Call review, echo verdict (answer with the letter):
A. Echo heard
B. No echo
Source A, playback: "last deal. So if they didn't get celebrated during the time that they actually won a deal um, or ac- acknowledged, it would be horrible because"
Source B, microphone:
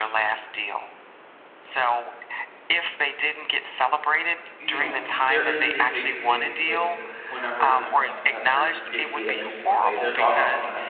A